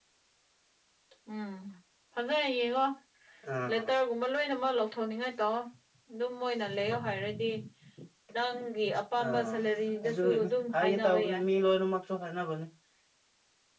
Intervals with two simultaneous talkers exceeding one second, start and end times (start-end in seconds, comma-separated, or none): 10.0-11.4